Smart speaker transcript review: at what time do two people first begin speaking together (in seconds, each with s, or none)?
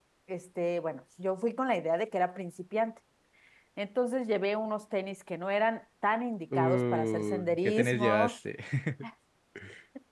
6.5 s